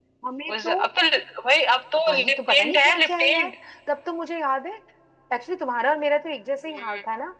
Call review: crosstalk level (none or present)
present